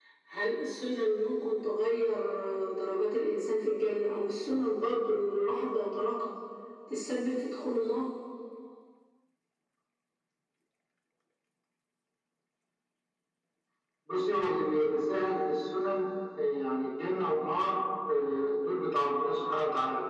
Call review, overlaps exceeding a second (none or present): none